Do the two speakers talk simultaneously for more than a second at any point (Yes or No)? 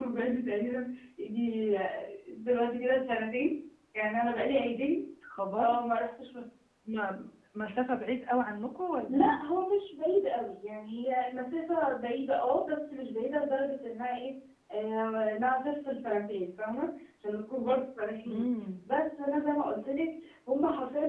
No